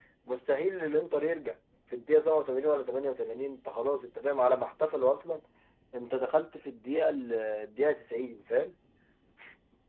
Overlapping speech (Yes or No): No